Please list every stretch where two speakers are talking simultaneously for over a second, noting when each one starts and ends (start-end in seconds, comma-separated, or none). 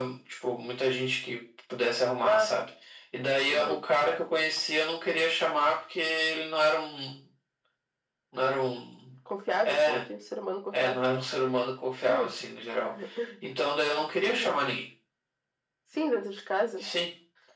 none